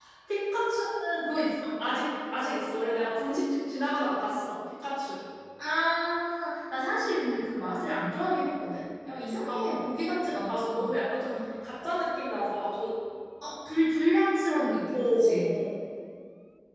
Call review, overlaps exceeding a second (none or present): none